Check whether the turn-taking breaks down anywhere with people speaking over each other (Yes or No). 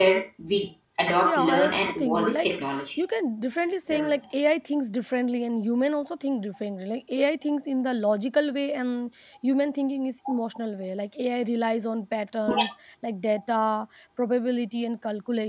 Yes